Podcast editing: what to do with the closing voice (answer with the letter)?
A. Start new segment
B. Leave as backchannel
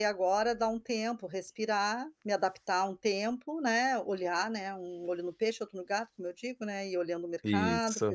B